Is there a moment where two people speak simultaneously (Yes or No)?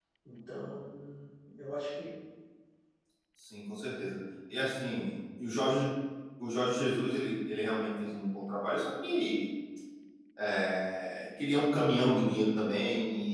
No